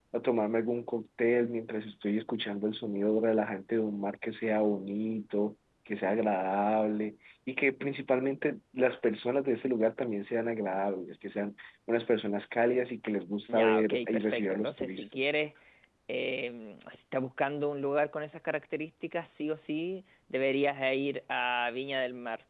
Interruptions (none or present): present